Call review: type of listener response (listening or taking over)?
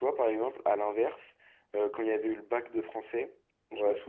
listening